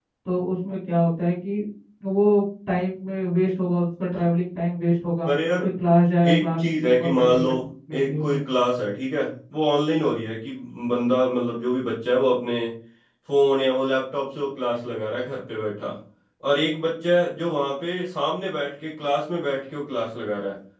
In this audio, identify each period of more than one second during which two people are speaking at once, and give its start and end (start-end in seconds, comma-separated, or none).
6.3-7.5